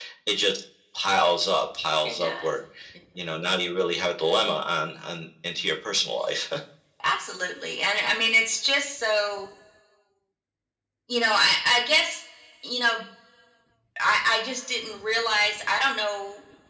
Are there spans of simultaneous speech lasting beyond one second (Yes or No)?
No